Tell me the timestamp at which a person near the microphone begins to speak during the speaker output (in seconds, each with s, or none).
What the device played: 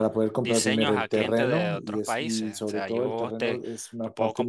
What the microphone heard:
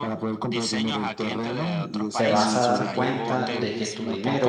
2.1 s